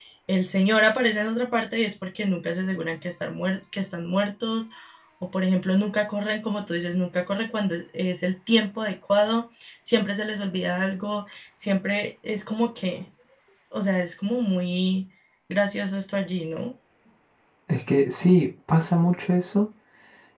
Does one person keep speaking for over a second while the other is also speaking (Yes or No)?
No